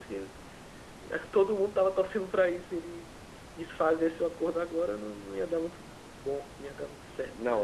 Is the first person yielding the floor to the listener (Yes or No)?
Yes